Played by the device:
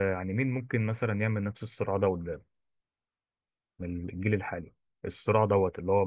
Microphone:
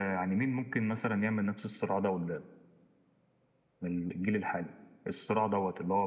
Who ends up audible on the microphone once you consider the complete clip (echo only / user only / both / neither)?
echo only